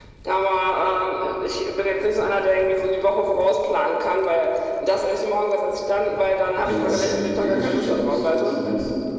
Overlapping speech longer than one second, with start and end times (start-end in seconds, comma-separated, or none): 6.6-8.6